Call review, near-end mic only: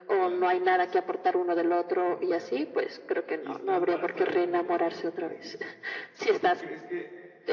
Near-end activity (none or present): present